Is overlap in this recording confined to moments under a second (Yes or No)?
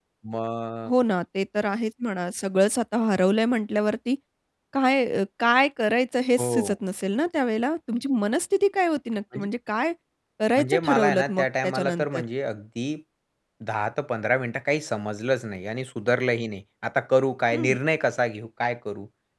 No